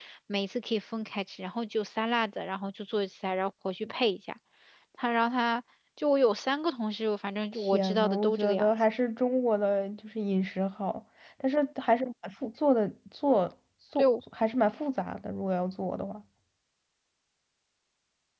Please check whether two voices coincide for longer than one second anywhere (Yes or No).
Yes